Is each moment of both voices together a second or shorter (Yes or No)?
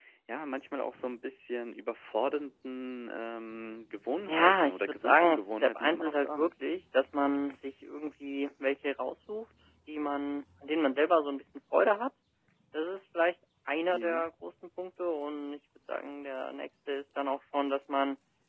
No